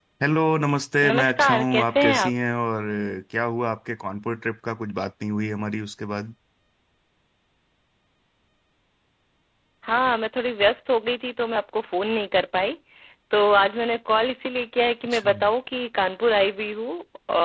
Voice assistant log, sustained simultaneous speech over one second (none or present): present